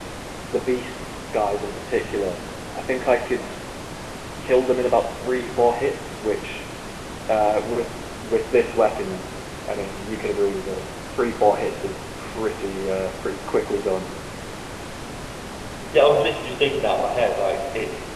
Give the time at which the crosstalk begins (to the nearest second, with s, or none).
none